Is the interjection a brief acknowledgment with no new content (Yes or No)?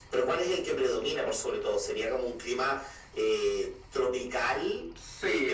No